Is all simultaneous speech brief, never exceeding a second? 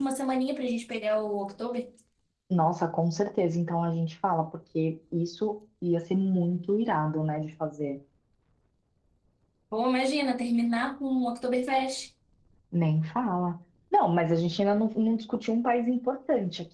Yes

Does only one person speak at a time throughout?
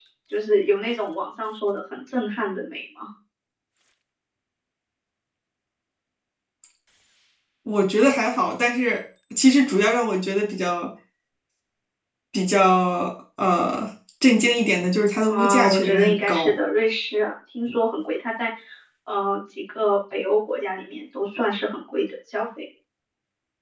No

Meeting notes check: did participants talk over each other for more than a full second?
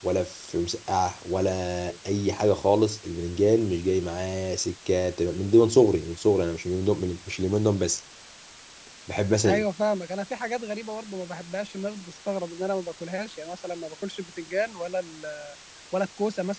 No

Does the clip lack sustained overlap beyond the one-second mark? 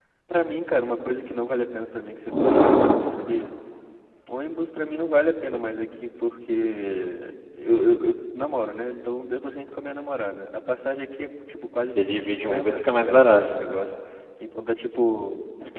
No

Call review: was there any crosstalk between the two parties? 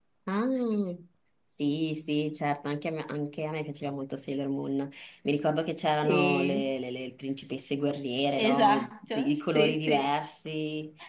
Yes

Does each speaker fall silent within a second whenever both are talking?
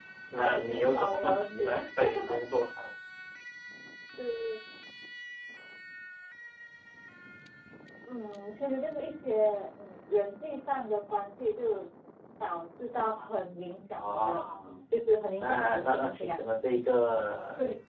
No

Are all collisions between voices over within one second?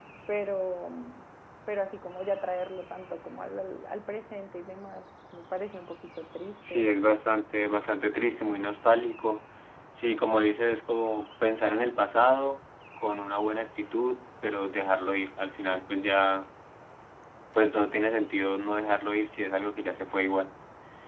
Yes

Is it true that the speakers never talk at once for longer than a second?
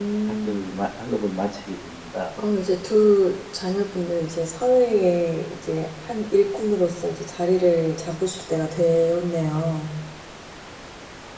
Yes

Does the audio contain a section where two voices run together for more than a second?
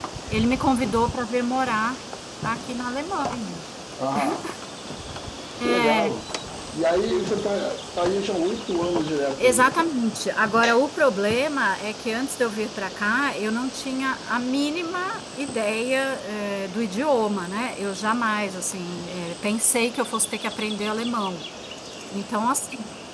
No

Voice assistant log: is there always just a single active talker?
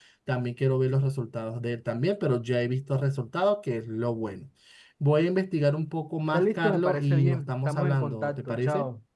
No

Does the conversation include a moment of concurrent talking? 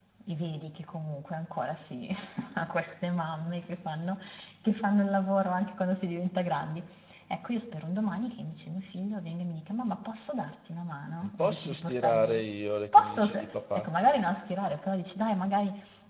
Yes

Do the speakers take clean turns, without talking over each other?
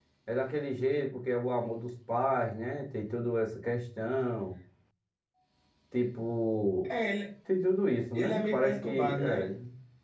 No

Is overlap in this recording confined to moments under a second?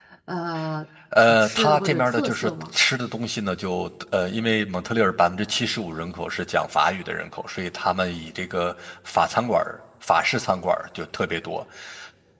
No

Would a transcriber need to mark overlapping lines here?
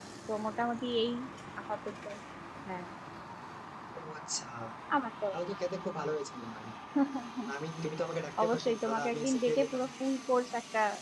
Yes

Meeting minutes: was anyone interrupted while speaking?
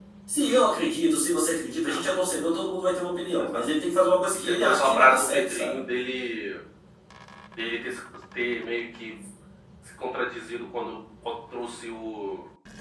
Yes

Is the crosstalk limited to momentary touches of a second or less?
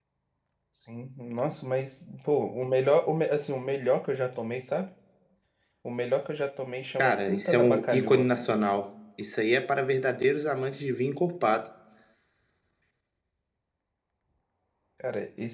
No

